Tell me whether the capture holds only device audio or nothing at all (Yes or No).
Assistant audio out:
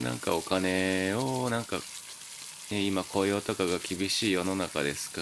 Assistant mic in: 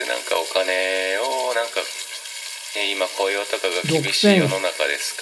No